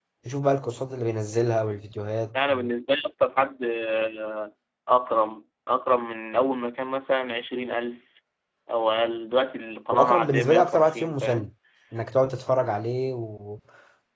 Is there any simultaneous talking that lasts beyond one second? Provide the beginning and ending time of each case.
9.9-11.5

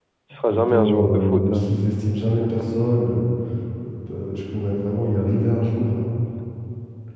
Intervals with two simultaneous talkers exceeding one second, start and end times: 0.5-1.8

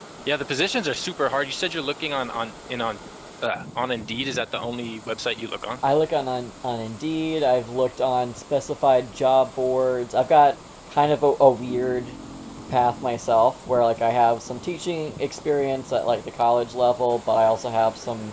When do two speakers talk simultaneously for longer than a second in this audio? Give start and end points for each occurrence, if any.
none

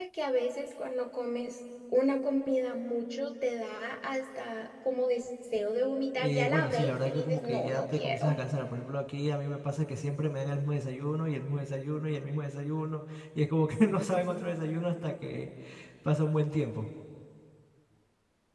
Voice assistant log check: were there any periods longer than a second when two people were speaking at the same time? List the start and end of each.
6.2-8.4

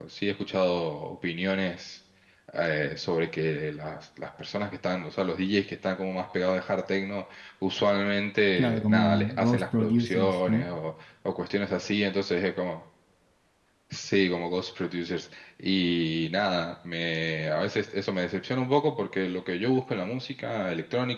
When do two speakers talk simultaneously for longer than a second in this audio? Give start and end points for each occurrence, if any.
8.6-10.7

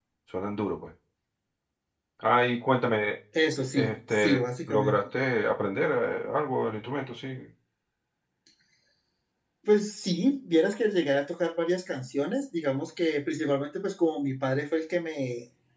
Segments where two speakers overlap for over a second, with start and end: 3.8-5.0

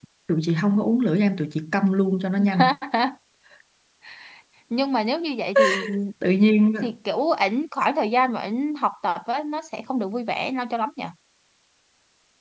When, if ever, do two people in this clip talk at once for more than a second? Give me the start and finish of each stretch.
none

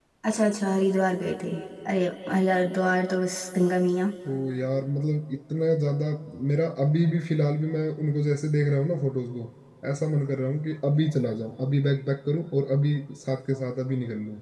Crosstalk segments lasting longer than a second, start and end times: none

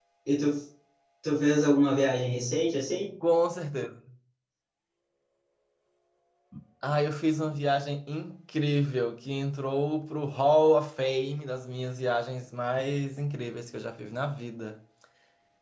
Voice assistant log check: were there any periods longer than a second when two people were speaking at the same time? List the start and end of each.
none

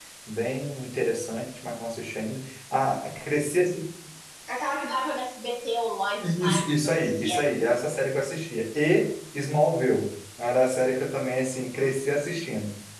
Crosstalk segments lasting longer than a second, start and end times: 6.2-7.4

